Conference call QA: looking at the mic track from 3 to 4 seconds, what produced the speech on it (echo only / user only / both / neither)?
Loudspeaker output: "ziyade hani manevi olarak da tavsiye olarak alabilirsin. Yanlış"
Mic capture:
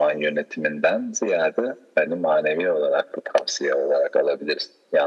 echo only